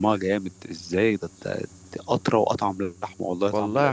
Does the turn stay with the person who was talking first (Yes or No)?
No